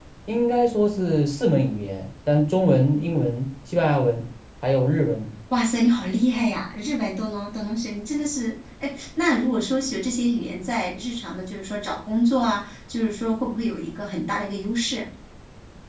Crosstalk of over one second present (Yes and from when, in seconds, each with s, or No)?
No